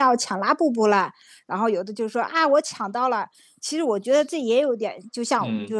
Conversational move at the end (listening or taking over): listening